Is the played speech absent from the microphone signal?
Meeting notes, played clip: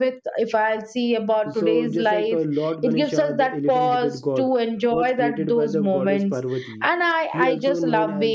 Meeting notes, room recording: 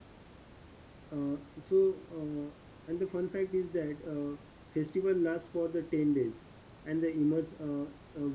Yes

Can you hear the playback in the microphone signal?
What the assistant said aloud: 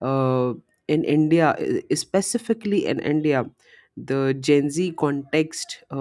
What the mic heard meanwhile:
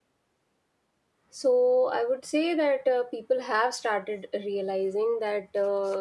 No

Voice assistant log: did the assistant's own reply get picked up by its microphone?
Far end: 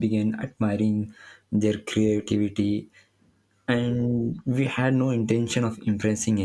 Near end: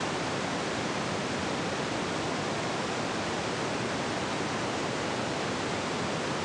No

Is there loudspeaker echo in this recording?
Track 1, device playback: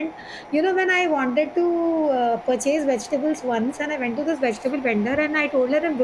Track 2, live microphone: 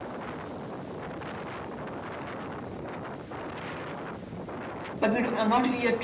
No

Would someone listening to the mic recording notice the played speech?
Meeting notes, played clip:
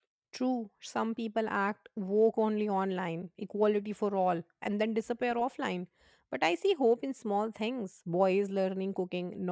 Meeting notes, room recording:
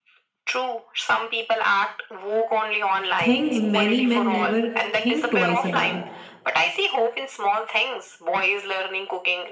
Yes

